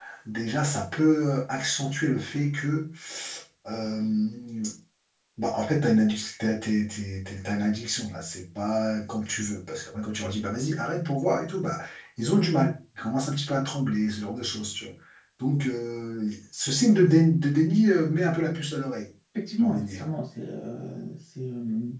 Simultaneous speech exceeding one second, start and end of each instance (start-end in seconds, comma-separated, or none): none